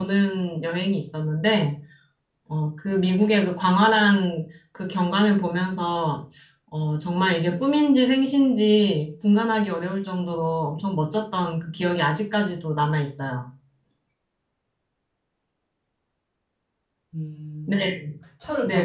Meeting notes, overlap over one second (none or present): none